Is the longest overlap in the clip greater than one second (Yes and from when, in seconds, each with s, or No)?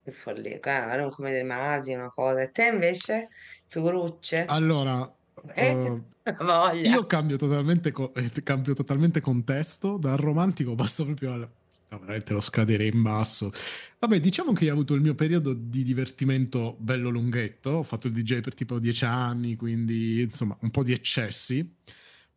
No